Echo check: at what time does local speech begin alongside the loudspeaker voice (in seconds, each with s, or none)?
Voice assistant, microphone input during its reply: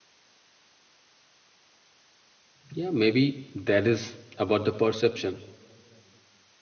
2.7 s